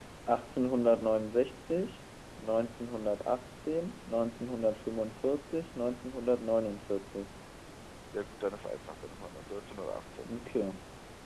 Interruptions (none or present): none